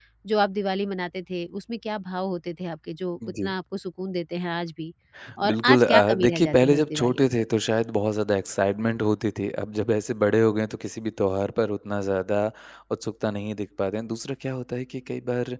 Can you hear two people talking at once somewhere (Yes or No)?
Yes